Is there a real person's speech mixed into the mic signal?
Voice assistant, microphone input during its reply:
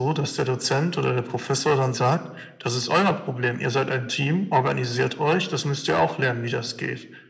No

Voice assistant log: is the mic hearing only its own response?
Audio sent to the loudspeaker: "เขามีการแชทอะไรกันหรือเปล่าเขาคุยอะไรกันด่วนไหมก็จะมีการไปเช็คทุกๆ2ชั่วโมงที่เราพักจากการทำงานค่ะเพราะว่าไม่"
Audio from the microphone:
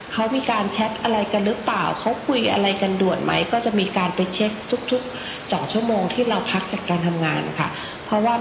Yes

